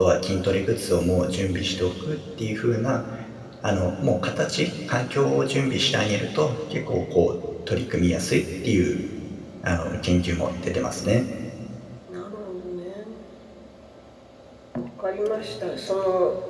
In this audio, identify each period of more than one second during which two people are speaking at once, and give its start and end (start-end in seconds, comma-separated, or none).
none